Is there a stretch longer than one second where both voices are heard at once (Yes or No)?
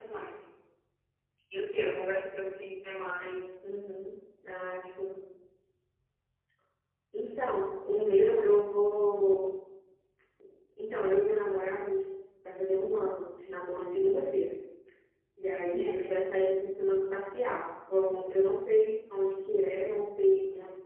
No